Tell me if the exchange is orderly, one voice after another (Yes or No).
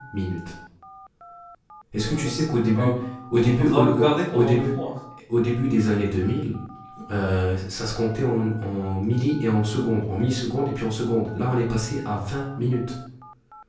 No